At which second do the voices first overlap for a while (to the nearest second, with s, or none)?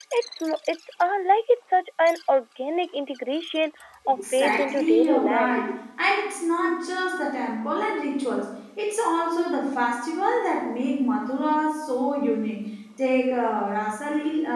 4 s